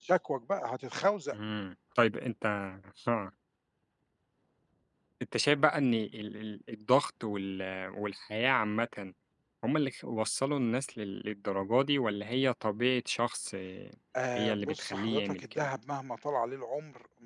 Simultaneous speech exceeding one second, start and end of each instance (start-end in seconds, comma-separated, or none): 14.3-15.7